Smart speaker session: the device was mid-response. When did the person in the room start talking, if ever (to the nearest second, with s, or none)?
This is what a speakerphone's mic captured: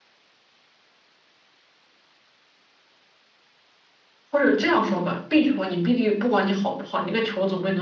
4 s